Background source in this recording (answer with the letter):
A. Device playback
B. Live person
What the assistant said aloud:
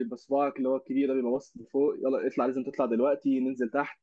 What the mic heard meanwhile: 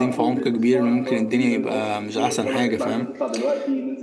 A